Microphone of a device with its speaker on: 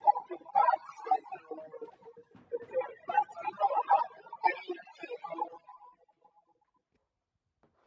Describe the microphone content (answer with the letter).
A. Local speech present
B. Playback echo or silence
B